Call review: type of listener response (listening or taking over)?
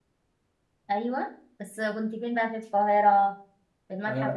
taking over